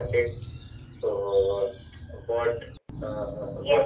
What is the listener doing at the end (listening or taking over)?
taking over